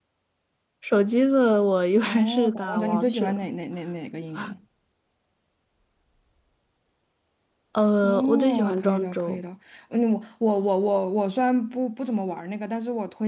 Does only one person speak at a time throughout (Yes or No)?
No